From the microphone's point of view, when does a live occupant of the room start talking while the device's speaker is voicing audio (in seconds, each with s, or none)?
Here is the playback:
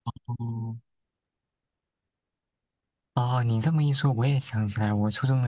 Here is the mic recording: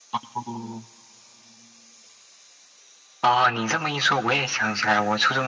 none